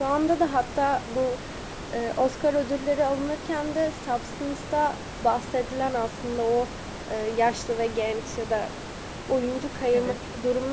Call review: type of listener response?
listening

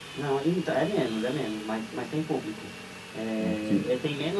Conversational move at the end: listening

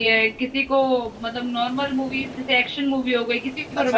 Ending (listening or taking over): taking over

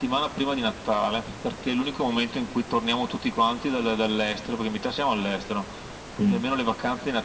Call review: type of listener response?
listening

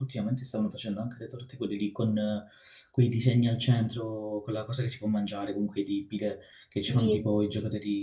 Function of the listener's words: listening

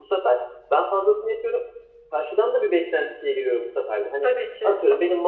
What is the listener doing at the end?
listening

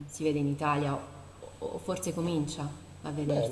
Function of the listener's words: taking over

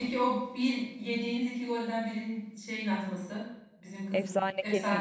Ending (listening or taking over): taking over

